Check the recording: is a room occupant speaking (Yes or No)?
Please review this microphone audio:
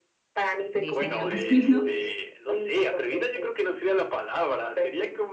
Yes